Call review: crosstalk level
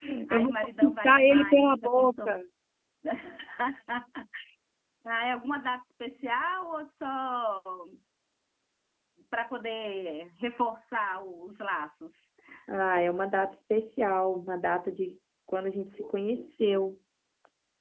present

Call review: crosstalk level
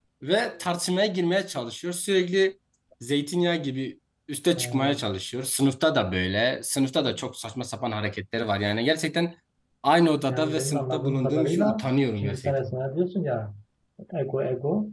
present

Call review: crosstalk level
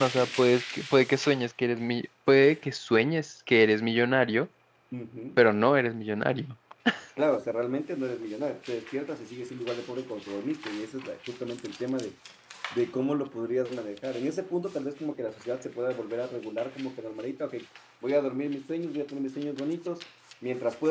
none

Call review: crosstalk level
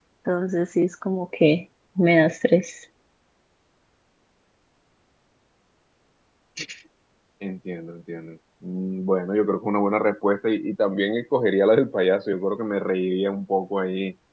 none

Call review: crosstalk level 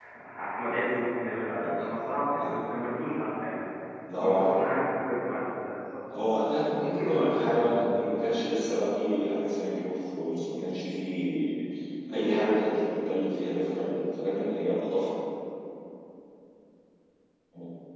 present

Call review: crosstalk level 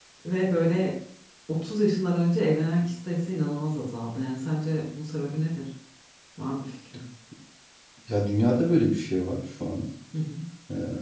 none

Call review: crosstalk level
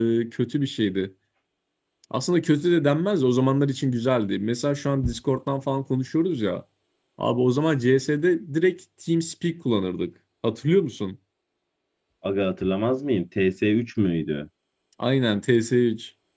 none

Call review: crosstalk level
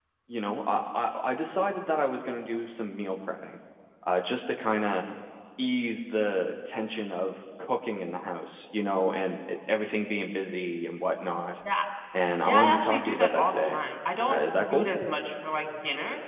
present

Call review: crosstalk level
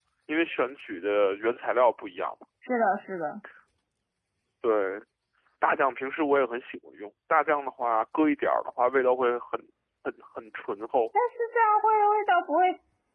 none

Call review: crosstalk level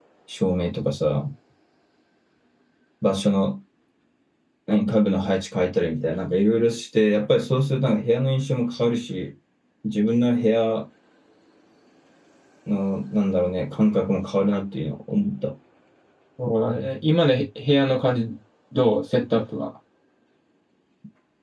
none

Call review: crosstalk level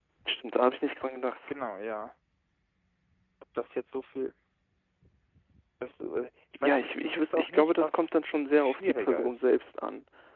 present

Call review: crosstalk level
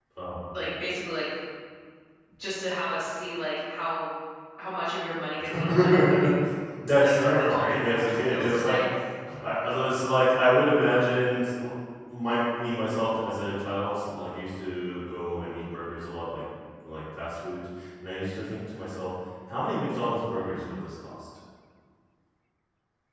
present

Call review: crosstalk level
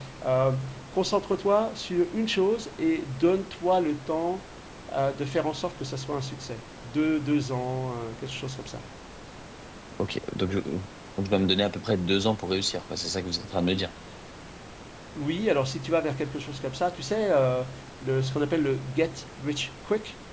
none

